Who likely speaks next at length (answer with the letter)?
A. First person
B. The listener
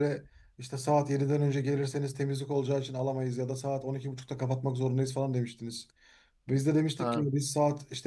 A